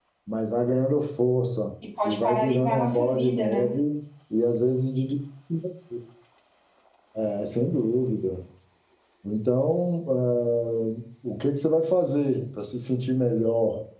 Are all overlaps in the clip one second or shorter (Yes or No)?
No